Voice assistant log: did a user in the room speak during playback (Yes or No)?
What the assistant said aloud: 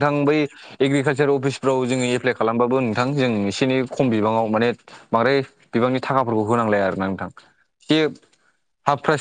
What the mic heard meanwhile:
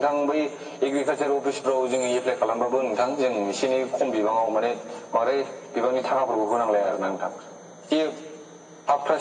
No